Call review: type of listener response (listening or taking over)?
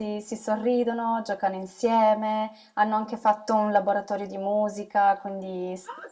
taking over